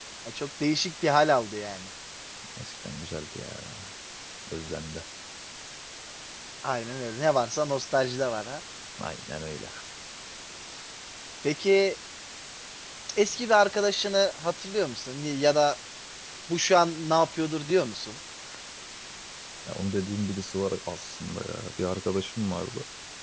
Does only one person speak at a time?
Yes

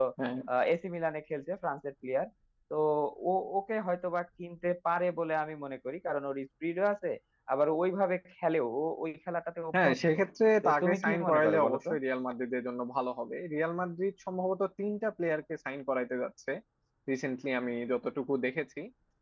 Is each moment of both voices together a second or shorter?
No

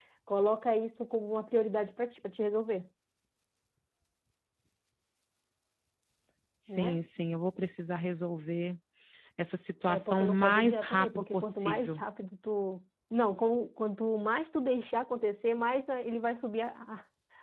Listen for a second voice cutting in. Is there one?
Yes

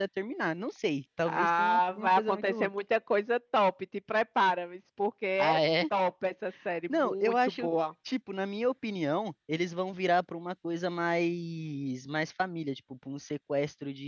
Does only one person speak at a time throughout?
No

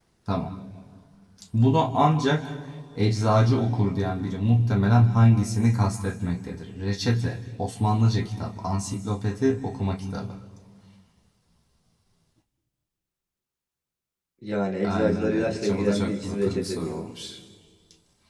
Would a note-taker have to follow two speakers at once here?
Yes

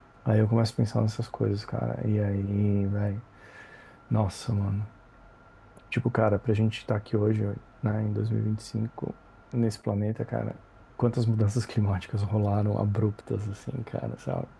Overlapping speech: No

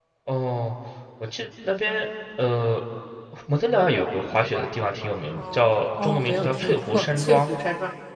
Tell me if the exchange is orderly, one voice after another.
No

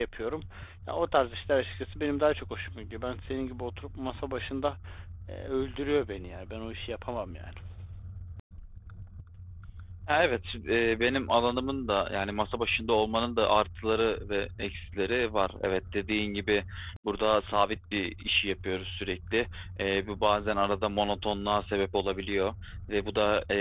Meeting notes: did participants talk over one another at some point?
No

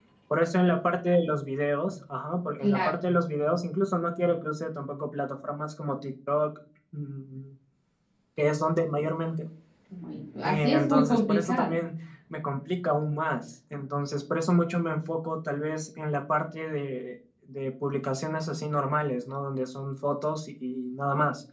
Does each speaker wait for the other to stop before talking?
No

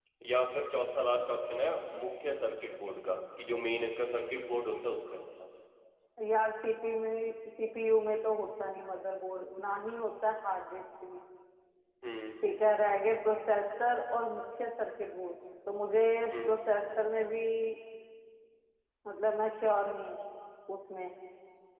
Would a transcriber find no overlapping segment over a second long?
Yes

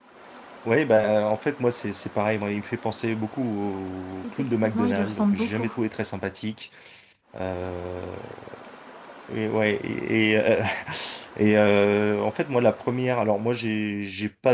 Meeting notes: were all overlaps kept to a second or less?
No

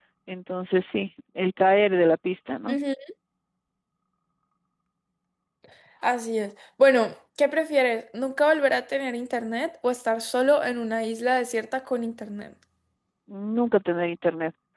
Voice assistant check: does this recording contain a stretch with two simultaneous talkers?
No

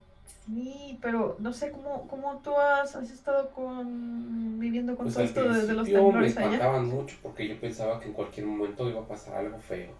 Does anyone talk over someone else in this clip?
Yes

